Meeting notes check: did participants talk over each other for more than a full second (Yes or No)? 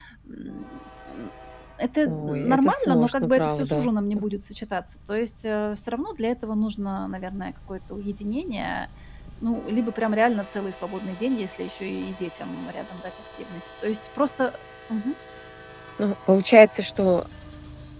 Yes